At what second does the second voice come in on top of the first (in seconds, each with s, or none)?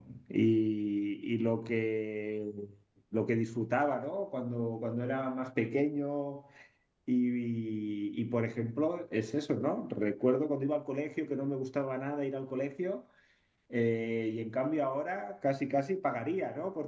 none